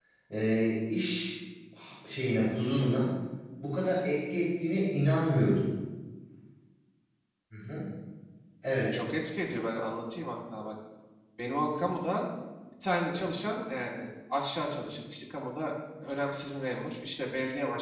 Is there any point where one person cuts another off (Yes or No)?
No